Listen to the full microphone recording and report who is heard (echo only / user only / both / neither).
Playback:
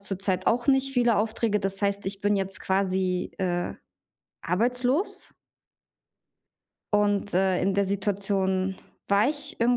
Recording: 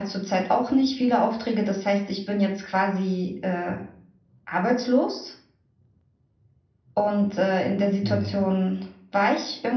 both